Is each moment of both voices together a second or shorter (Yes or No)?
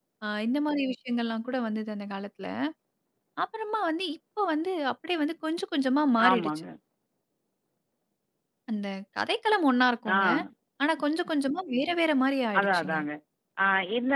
Yes